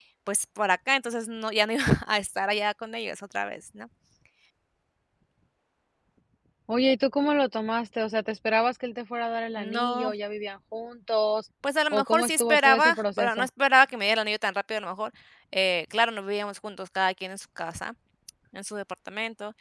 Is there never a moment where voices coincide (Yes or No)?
No